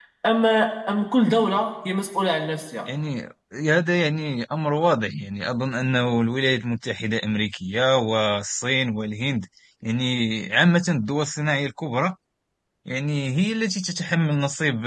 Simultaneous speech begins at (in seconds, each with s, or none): none